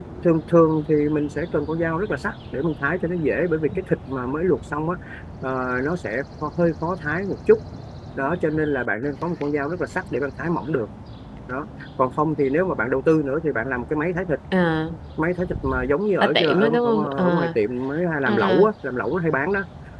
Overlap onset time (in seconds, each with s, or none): 16.2 s